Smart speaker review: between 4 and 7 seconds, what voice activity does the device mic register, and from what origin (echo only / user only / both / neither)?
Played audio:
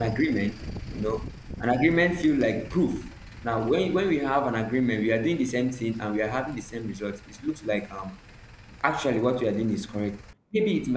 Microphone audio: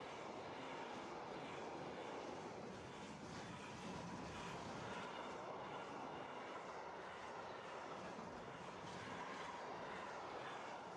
neither